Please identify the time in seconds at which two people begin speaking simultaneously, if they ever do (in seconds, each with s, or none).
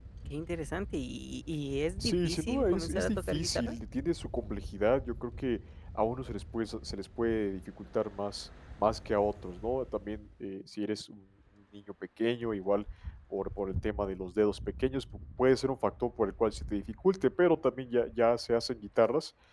2.0 s